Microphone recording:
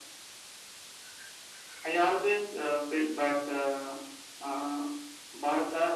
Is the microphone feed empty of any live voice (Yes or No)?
Yes